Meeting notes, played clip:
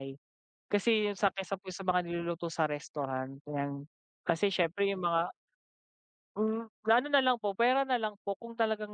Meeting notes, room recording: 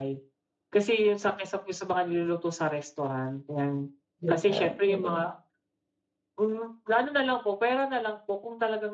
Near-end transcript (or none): 'Di ba? Mm.